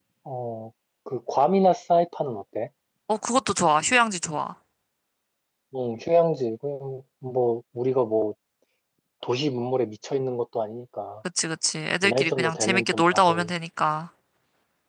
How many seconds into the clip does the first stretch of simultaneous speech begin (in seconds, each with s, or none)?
12.0 s